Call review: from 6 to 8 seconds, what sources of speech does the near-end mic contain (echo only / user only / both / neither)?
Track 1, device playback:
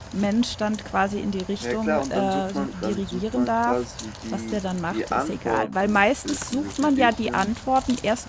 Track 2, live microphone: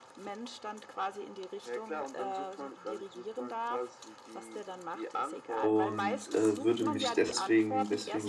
both